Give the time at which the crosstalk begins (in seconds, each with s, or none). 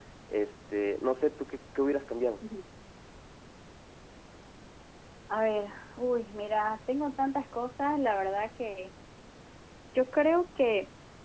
none